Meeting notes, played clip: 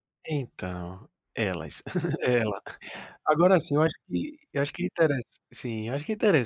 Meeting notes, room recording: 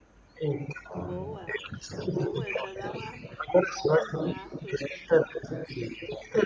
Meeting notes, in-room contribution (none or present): present